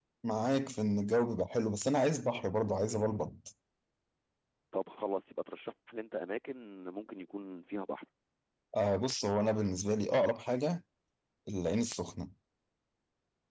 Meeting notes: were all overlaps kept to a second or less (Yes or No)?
Yes